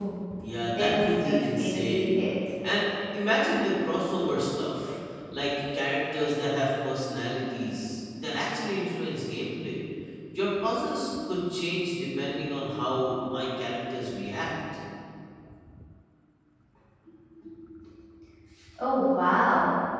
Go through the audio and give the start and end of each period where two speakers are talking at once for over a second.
0.8-2.2

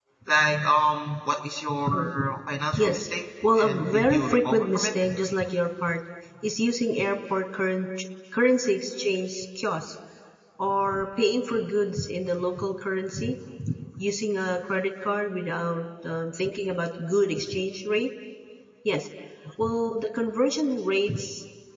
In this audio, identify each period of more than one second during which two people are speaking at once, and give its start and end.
3.6-4.9

